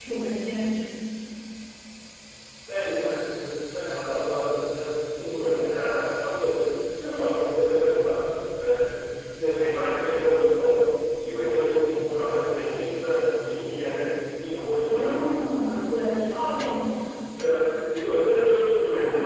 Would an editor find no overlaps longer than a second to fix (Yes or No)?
Yes